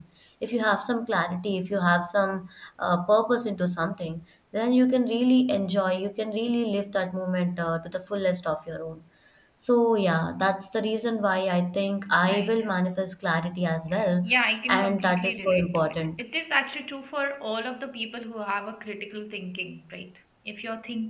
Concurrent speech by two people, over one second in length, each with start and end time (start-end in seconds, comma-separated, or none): 14.7-16.2